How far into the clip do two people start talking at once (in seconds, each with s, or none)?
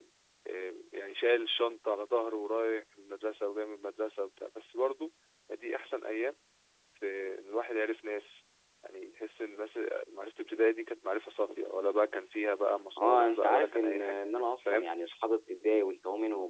13.0 s